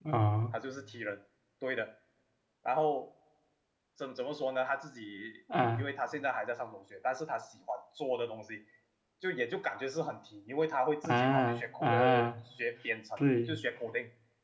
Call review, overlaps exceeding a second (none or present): present